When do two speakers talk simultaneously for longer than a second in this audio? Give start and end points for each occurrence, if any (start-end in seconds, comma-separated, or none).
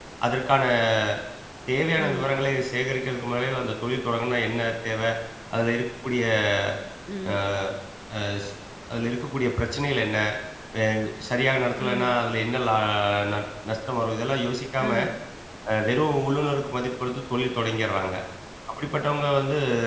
none